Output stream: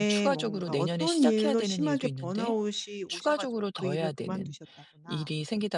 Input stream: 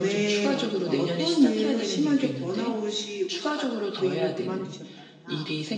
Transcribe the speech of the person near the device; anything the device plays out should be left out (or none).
none